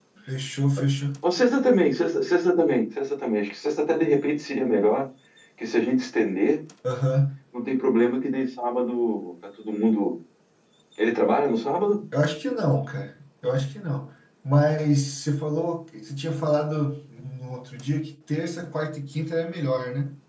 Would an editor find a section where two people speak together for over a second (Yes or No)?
No